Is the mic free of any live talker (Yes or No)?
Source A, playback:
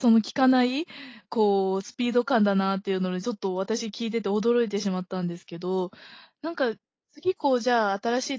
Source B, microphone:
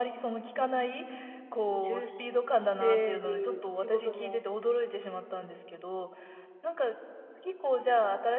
No